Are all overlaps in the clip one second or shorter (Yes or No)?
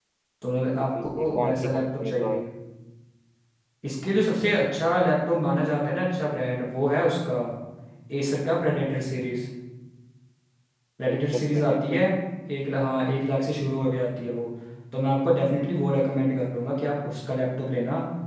No